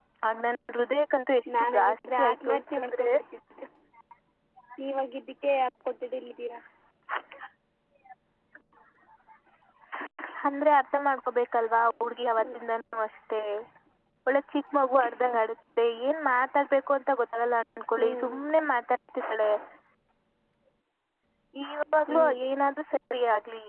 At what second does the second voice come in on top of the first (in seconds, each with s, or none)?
1.6 s